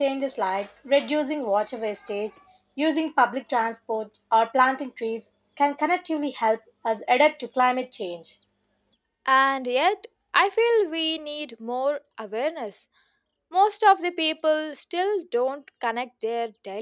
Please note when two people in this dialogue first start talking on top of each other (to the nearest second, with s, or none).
none